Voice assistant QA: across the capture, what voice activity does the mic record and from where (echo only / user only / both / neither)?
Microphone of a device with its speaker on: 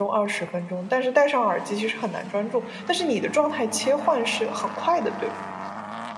user only